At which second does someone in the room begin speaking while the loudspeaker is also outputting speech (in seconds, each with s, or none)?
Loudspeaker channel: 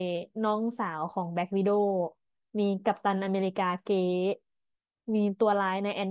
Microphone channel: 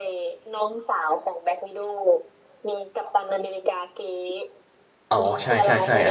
5.1 s